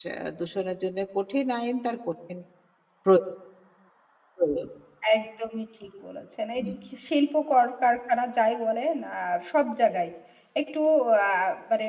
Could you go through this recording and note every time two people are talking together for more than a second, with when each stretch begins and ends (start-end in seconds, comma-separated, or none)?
none